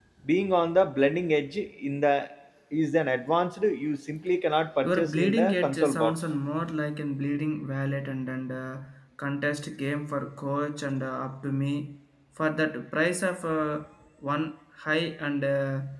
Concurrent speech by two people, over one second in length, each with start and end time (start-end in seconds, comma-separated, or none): 4.8-6.1